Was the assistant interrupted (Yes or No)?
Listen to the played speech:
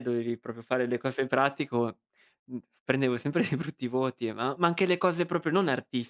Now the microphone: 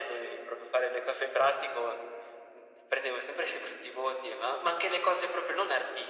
No